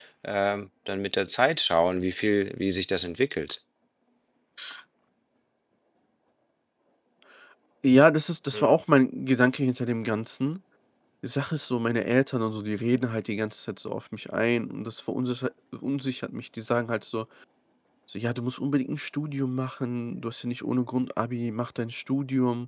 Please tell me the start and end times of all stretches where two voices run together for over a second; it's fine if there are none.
none

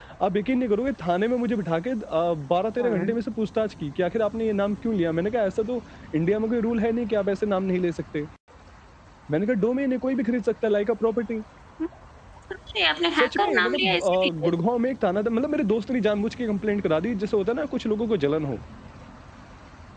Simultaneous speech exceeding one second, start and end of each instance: 13.2-14.5

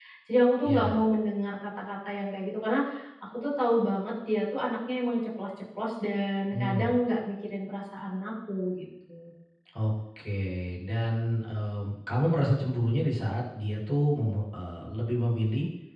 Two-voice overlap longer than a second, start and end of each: none

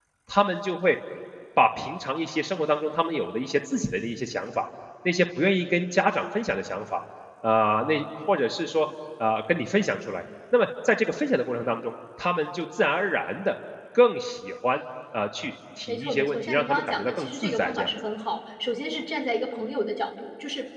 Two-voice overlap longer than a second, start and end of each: 15.9-17.9

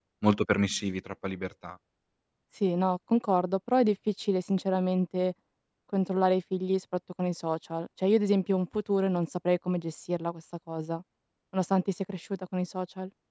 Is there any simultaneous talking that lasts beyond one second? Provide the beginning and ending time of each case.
none

